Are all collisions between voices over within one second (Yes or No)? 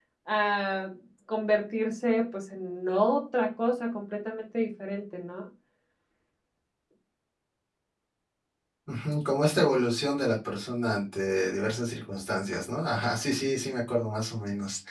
Yes